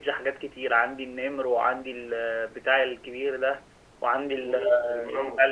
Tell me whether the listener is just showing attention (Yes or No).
No